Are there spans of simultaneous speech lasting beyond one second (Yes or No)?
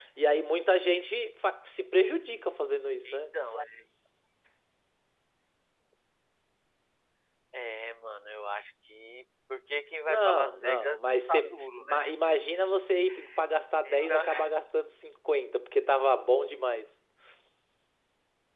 Yes